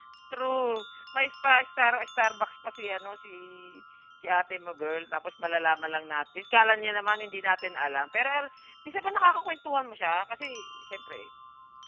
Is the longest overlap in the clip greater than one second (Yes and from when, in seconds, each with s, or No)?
No